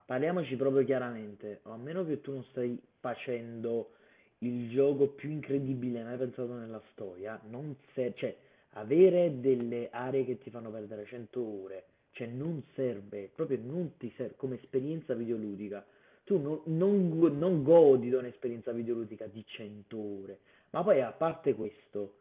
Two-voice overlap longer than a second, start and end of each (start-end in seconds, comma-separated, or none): none